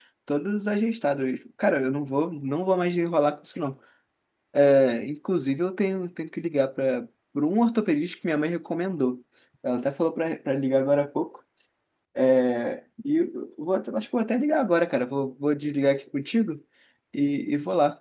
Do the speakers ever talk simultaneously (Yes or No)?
No